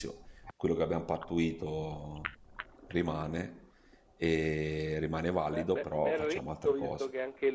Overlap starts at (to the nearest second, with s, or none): 5 s